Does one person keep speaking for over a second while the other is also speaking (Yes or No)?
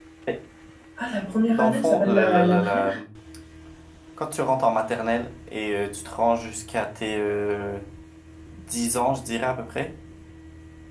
Yes